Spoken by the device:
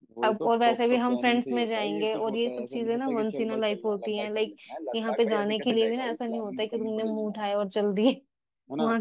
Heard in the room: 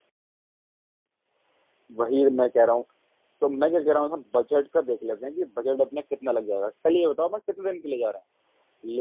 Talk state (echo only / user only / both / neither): user only